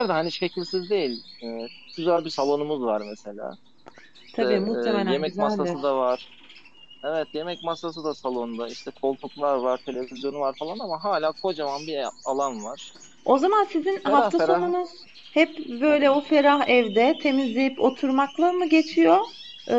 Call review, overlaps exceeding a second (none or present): present